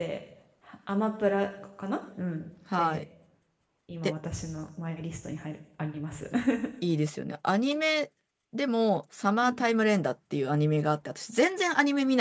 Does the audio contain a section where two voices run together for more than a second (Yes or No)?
No